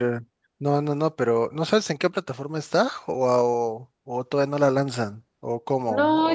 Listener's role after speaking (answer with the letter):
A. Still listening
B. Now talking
B